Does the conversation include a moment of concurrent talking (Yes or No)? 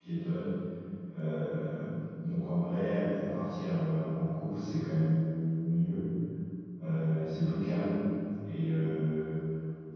No